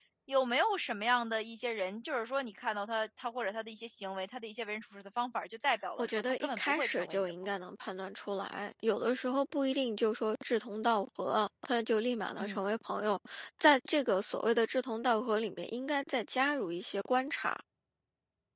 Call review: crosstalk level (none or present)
present